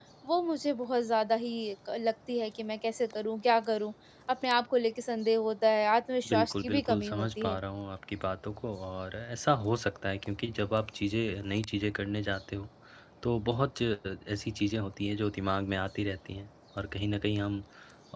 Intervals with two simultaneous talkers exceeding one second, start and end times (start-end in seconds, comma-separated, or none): 6.3-7.6